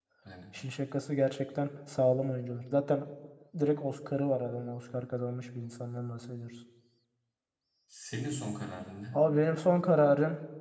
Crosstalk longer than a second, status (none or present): none